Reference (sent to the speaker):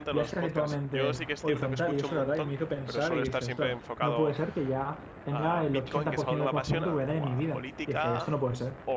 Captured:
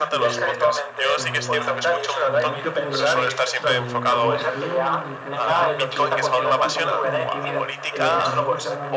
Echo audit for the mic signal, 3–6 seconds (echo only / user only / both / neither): both